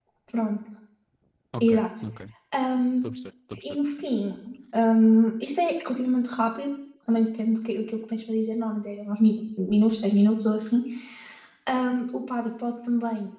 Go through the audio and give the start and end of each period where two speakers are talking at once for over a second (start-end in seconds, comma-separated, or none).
none